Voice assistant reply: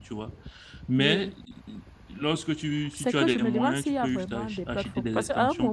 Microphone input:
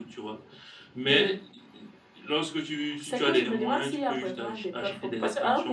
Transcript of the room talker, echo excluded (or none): none